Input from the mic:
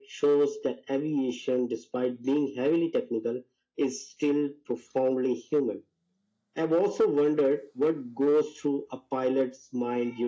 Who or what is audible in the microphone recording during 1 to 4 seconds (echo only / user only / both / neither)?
echo only